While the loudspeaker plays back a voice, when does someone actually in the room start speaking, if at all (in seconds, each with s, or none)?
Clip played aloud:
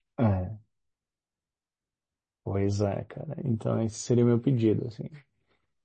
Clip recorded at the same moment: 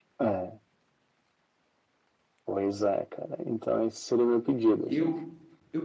4.8 s